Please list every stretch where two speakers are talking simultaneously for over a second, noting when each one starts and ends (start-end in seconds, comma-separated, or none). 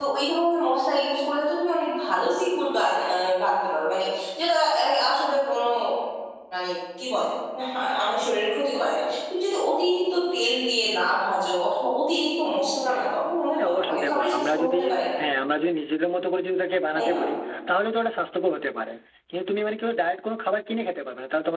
13.6-14.8